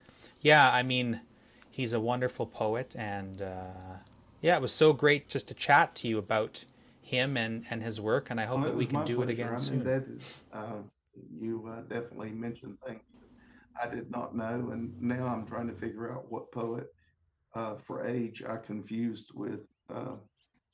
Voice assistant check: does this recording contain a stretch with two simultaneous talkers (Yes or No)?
Yes